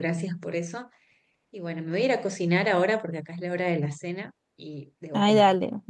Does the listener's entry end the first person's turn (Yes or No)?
Yes